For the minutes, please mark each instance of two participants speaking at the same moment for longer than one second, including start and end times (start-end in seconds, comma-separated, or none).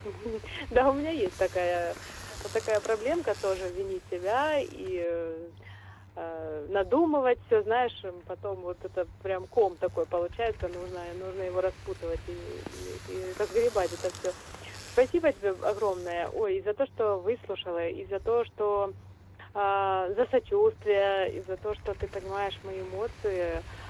none